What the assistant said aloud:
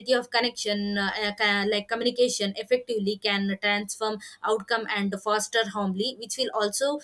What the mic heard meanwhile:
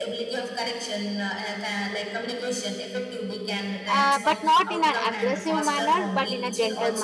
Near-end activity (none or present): present